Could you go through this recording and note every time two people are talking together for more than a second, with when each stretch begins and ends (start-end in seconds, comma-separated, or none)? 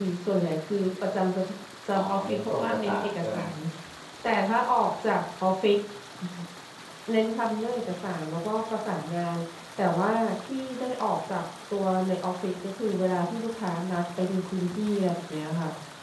1.9-3.4